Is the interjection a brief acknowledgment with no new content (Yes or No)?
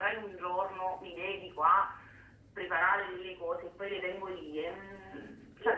No